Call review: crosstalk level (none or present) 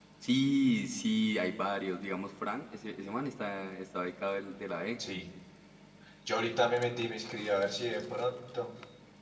none